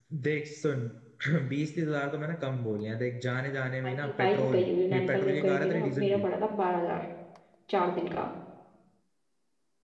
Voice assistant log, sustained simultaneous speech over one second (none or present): present